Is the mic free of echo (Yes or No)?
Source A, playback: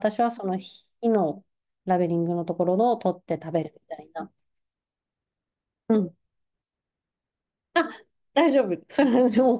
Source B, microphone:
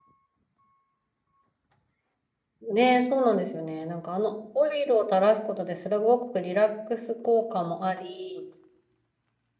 Yes